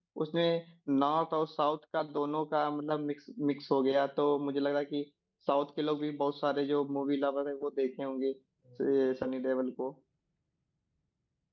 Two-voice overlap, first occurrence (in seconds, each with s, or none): none